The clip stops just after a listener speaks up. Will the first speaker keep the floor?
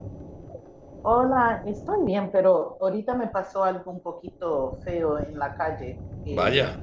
Yes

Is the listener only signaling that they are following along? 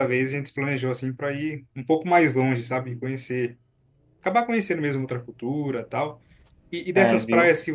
Yes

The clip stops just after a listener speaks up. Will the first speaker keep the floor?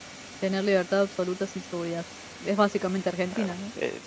No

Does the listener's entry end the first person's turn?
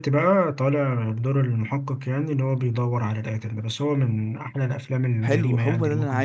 Yes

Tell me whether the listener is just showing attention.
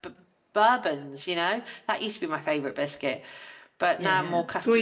No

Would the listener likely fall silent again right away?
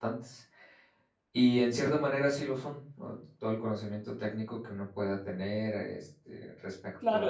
No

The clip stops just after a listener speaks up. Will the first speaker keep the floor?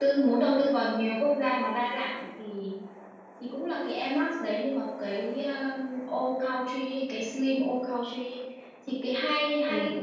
Yes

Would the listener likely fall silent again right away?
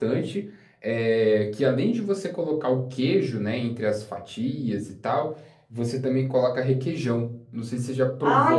No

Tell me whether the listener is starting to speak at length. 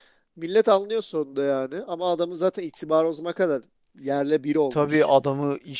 Yes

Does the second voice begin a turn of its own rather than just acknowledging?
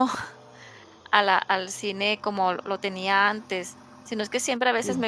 No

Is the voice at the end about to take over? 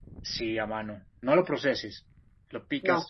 No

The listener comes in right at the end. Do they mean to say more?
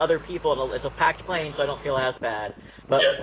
No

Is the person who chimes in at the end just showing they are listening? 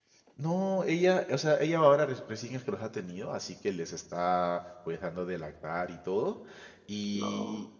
Yes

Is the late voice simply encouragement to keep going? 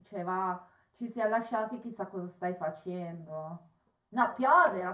Yes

